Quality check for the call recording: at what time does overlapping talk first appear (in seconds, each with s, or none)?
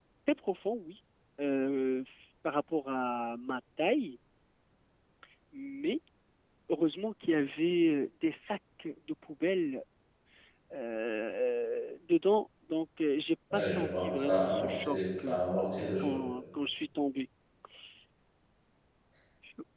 13.5 s